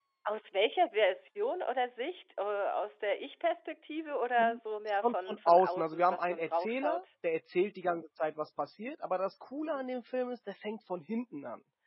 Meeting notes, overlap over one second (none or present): present